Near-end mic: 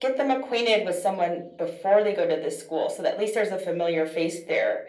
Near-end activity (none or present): none